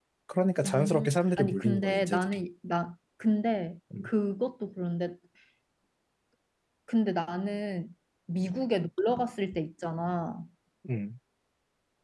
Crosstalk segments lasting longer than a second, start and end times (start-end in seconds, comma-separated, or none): 0.6-2.4